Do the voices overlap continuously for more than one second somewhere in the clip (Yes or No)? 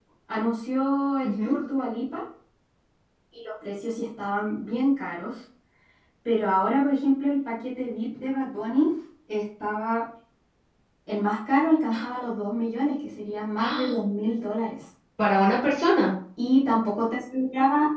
No